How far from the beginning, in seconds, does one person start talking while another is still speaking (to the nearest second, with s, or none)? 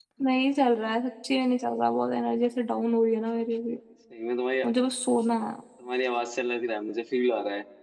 none